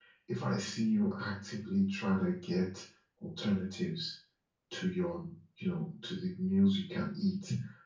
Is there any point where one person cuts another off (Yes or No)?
No